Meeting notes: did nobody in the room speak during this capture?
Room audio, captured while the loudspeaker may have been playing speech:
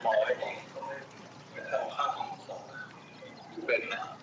Yes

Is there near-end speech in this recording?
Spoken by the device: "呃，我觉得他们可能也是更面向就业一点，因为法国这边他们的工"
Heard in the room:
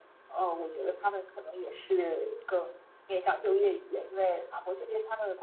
No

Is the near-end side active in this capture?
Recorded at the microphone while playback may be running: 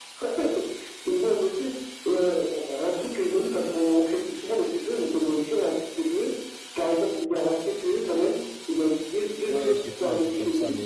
Yes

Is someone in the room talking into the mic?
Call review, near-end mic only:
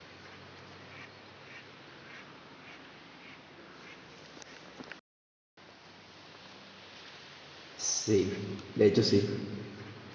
Yes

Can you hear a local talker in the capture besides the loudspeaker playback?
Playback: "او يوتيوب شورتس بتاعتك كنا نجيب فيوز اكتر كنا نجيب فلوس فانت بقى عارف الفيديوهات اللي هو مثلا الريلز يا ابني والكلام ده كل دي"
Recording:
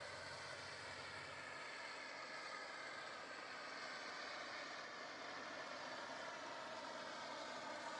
No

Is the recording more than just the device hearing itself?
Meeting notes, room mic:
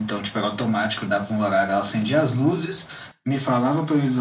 No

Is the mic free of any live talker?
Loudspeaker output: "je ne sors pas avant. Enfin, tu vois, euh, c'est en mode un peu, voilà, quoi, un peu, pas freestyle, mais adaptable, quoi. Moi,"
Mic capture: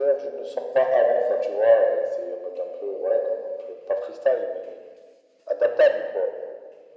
Yes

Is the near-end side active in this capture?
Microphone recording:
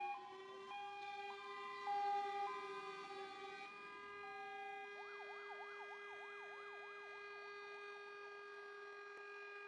No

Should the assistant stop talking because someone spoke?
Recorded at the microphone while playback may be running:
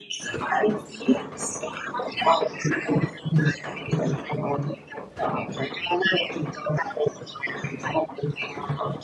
No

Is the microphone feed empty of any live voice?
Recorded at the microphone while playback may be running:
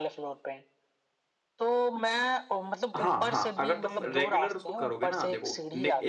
No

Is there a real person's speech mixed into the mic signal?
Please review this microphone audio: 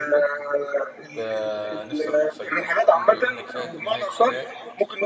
Yes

